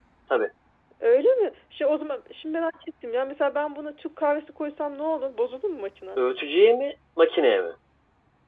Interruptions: none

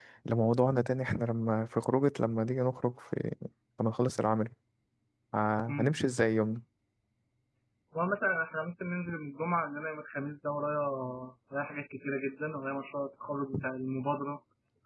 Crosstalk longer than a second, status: none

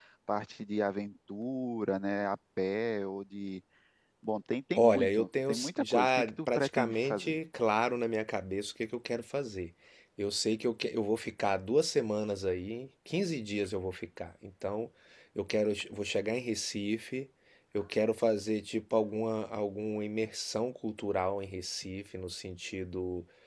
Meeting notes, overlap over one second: present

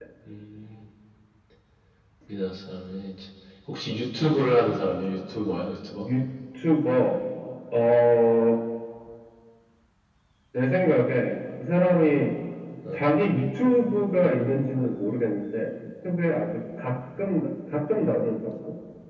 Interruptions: none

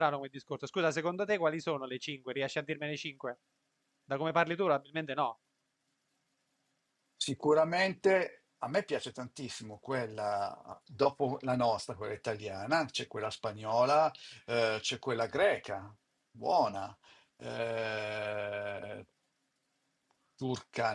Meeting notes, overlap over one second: none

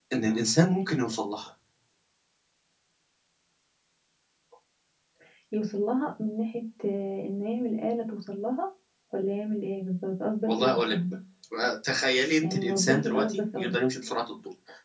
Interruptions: present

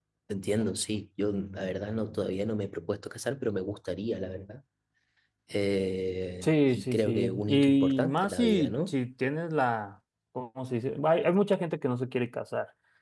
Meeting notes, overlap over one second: present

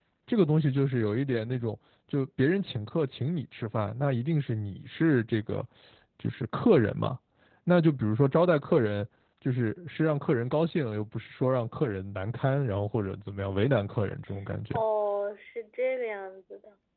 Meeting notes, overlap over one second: none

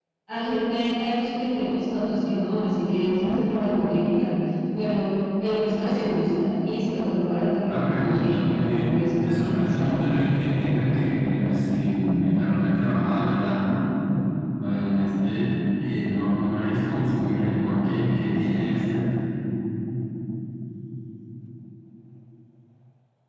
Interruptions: present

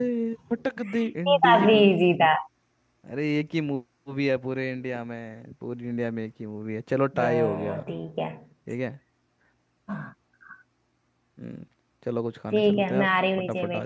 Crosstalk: present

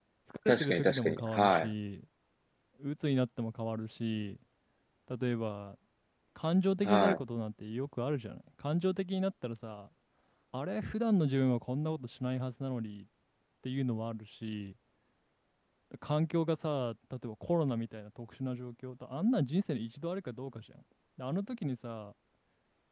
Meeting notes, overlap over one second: present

